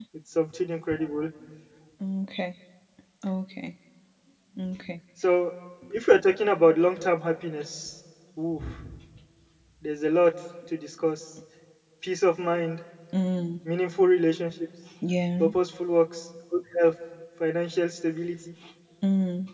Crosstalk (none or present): none